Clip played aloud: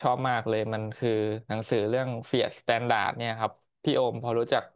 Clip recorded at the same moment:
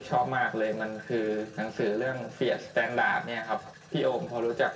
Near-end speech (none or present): none